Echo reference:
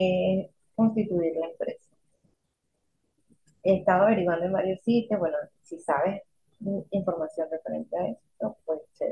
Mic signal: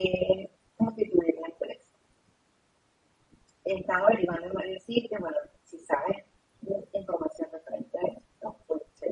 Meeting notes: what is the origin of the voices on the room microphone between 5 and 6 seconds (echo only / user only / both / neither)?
echo only